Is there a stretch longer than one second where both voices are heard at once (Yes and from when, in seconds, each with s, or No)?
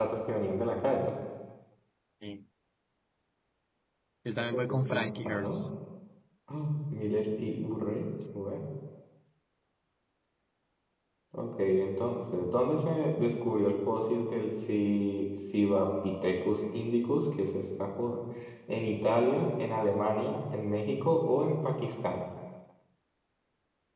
Yes, from 4.4 s